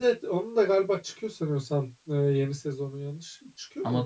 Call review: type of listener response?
taking over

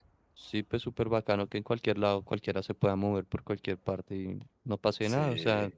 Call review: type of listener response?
listening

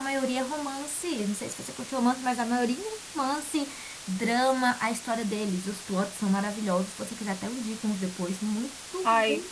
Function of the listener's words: listening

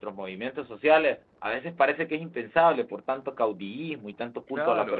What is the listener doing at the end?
taking over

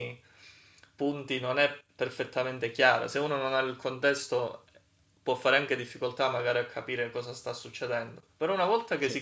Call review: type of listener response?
listening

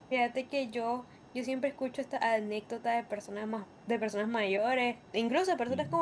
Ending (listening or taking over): listening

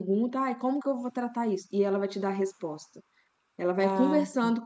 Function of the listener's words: listening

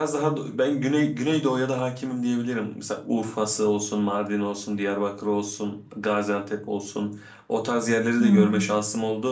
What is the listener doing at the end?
listening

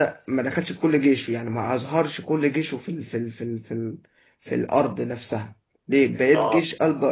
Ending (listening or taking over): listening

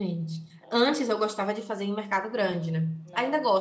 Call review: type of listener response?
listening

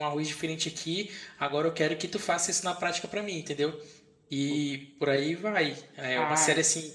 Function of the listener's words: listening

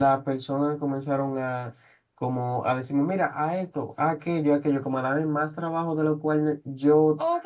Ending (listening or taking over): taking over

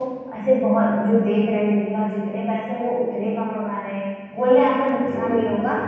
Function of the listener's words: listening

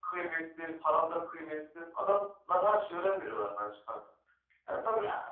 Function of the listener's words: listening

